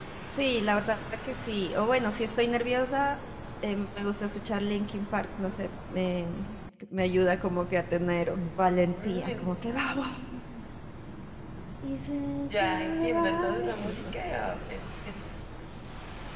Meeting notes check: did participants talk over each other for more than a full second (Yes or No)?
Yes